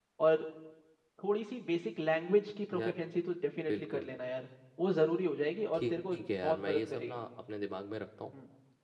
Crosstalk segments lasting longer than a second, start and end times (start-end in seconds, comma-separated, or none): 5.7-7.2